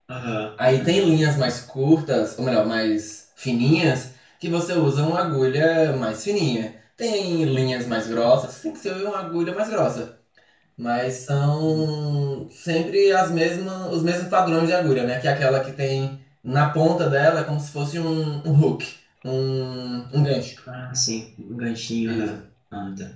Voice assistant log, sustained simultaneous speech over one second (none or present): none